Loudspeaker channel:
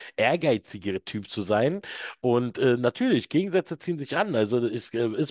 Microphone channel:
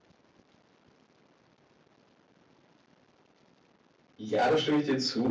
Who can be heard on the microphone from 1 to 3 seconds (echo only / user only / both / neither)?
neither